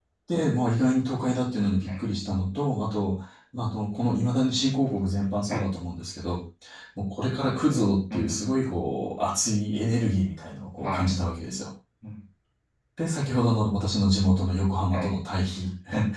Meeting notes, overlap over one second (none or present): none